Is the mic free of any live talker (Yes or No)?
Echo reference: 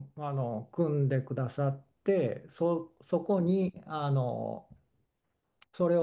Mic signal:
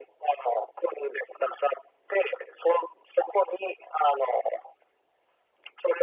Yes